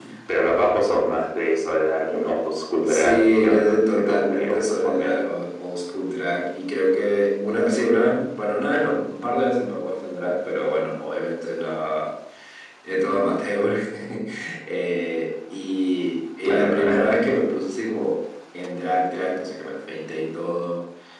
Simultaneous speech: Yes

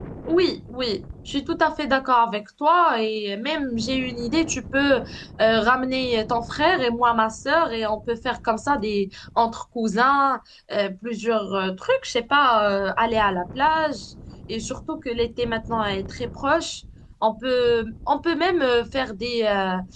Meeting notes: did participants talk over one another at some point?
No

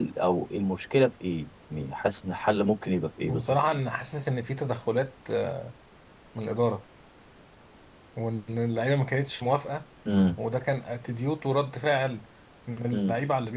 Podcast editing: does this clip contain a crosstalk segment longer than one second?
No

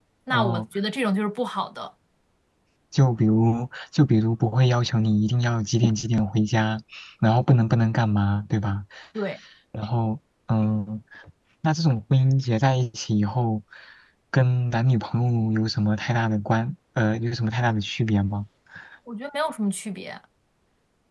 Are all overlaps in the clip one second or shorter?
Yes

